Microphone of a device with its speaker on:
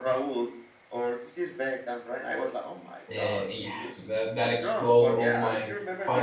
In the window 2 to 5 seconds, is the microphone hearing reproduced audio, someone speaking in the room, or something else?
both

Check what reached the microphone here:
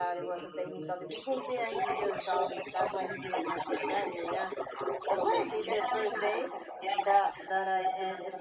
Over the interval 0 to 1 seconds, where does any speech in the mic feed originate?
both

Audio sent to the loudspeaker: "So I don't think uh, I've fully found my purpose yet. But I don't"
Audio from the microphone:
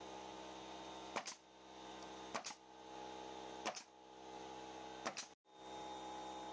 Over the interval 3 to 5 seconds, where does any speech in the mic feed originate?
neither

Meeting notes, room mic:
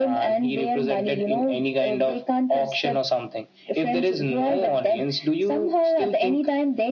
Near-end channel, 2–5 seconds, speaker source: echo only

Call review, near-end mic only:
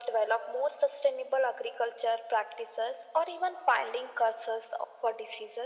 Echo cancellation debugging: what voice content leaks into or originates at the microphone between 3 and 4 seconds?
echo only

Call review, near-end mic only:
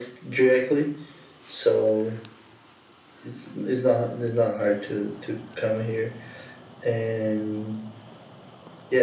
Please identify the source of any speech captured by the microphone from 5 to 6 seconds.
echo only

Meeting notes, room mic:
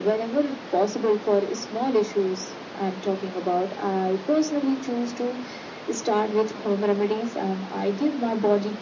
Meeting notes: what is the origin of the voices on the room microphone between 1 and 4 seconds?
echo only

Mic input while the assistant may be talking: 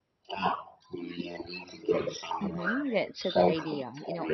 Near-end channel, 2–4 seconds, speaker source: both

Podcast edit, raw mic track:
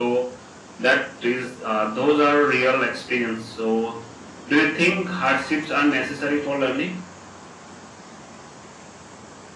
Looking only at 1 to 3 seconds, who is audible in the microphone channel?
echo only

